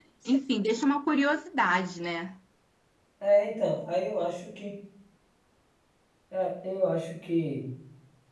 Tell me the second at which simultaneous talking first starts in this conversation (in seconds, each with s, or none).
none